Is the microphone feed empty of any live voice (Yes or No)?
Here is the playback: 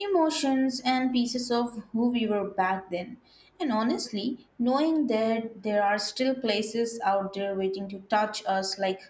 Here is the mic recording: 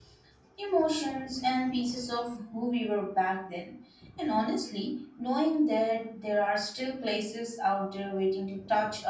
Yes